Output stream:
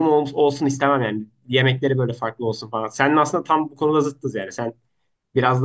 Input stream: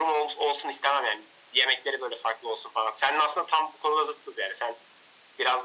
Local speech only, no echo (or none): none